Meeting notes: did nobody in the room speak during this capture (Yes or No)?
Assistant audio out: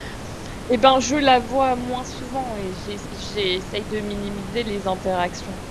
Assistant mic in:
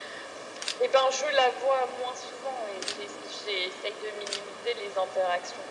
Yes